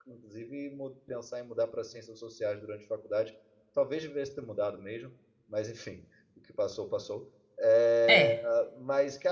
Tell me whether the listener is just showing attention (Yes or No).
Yes